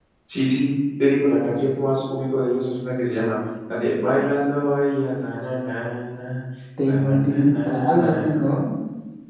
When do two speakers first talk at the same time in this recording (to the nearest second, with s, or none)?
7 s